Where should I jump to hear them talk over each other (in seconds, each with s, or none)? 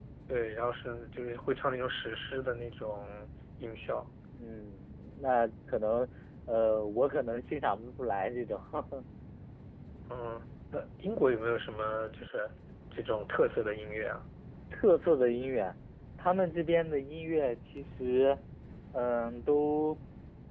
none